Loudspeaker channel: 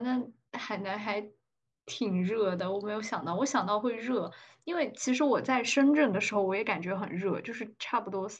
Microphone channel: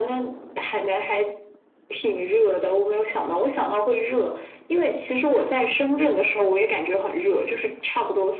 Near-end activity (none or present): none